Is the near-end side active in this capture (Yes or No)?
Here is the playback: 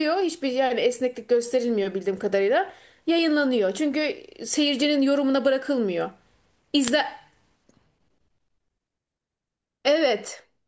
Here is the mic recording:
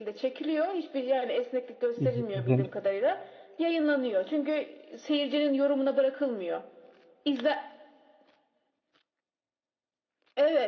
Yes